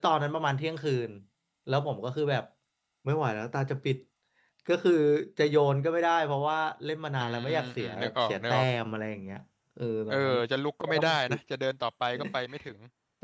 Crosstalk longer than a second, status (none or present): present